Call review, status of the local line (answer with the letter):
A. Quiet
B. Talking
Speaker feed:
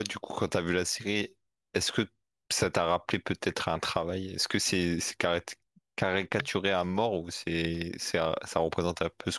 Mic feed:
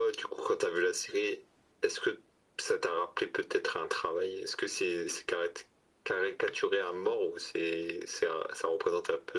A